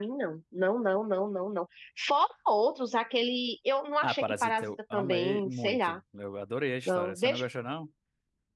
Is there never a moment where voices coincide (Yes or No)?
No